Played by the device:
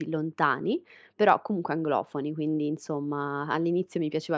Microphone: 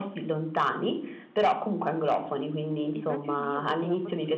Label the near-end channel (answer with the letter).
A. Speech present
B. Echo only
A